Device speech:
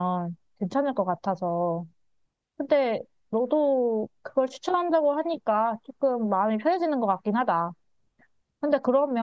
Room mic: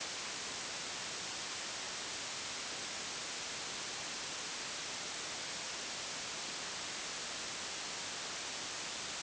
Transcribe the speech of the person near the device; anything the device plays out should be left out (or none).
none